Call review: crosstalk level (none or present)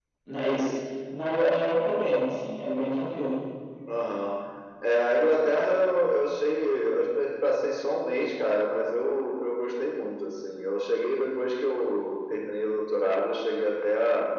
none